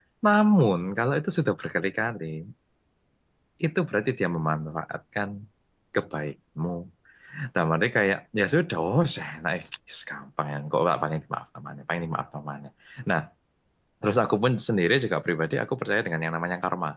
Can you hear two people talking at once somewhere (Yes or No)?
No